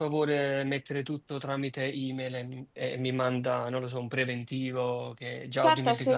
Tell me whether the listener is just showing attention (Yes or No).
No